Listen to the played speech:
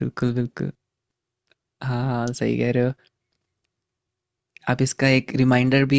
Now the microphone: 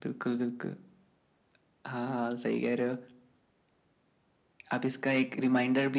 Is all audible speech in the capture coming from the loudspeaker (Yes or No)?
Yes